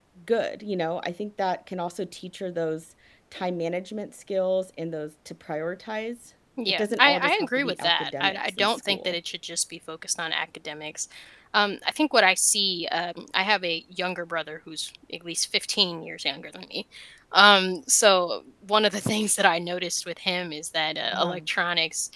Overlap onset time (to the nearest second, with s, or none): 7 s